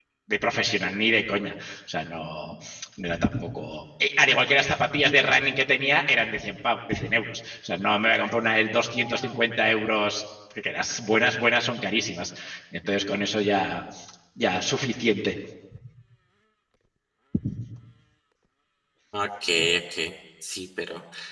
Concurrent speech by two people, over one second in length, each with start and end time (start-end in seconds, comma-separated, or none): none